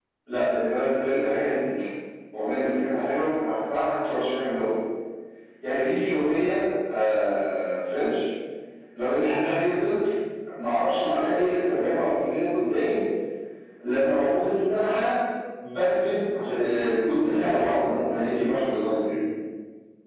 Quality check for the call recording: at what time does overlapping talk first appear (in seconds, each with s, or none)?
16.5 s